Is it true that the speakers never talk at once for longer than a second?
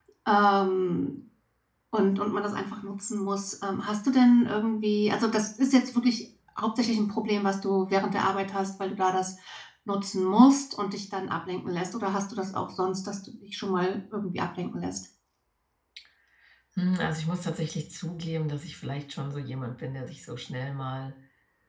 Yes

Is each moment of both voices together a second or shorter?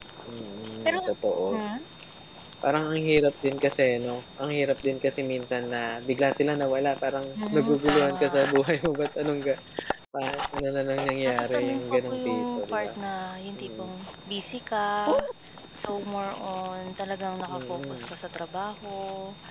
No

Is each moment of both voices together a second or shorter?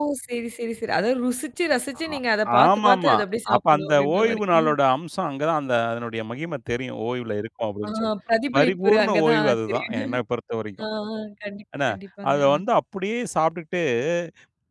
No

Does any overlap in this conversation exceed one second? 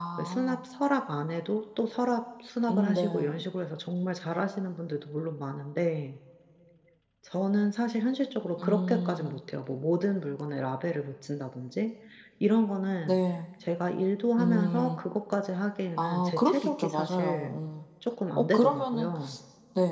Yes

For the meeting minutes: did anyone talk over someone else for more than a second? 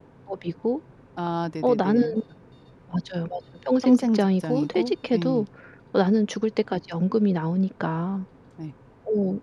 Yes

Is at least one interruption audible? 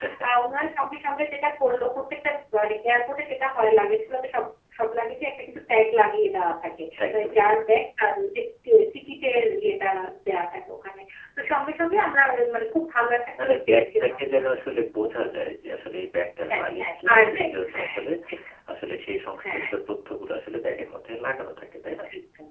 Yes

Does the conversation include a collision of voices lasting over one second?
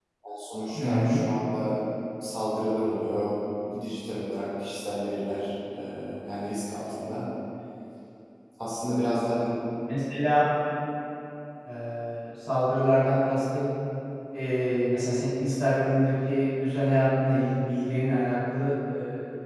No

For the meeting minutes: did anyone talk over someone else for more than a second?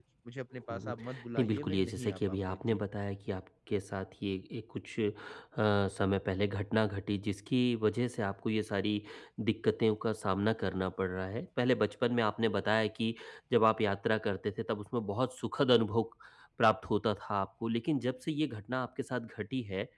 Yes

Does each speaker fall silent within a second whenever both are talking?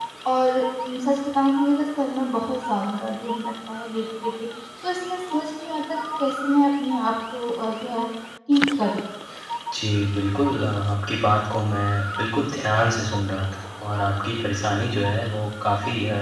Yes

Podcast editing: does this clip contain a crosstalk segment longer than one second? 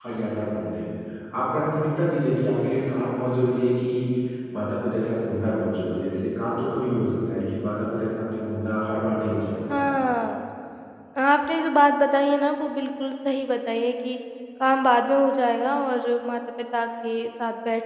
No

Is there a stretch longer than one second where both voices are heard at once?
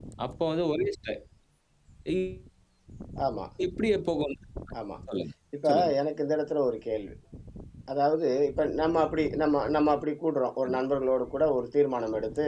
No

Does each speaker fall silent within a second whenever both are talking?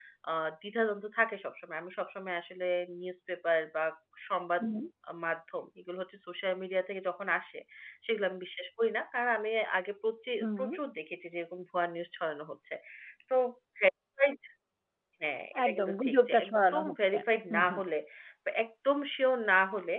No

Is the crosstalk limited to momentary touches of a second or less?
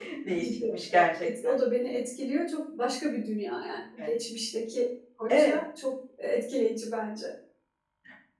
Yes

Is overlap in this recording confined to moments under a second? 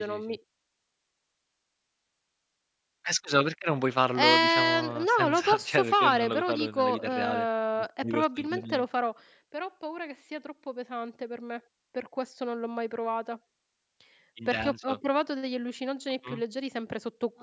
No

